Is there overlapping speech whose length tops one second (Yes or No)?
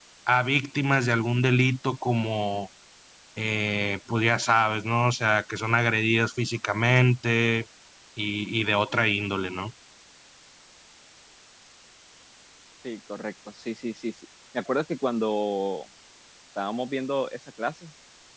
No